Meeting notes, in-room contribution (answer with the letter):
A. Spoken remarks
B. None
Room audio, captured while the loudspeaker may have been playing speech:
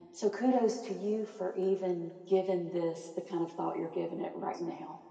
B